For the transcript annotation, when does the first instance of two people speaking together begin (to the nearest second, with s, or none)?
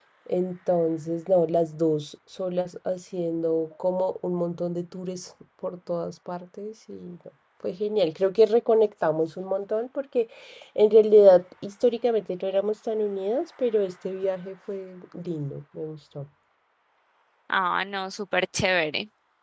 none